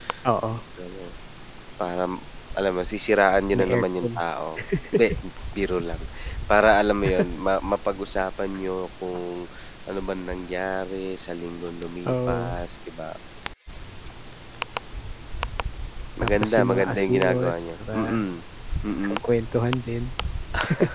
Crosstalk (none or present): present